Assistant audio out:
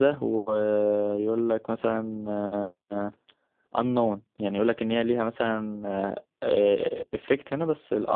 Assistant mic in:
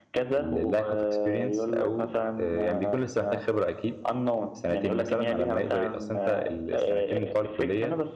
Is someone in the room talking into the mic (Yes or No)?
Yes